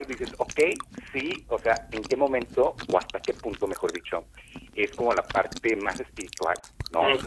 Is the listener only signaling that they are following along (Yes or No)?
Yes